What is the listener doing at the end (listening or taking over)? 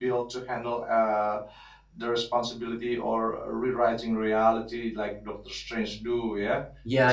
taking over